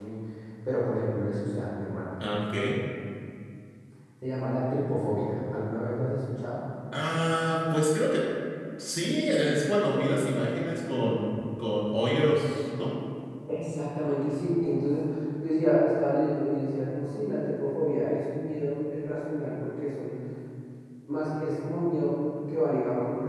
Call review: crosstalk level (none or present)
none